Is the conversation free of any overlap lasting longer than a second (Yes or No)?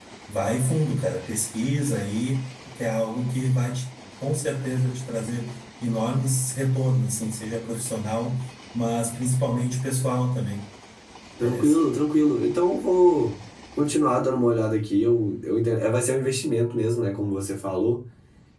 Yes